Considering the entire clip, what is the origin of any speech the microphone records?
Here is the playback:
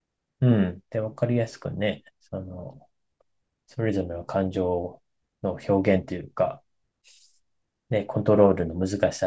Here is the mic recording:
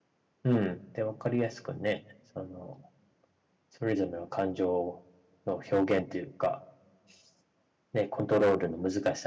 echo only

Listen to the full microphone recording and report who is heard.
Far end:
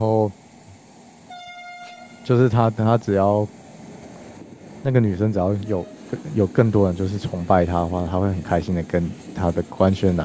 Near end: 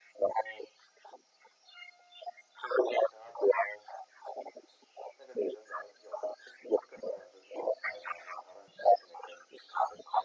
echo only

